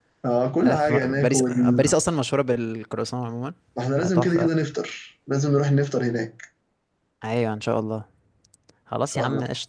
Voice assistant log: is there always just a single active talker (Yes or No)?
No